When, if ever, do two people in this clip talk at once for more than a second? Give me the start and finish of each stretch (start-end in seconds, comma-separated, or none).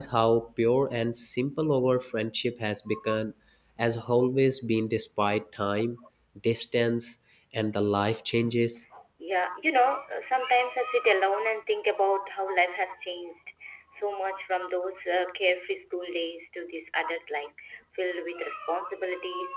none